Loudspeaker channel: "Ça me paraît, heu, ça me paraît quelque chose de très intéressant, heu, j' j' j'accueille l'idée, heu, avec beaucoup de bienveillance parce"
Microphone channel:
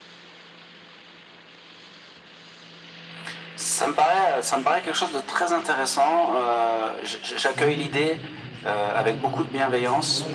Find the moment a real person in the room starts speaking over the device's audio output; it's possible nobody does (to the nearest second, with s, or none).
7 s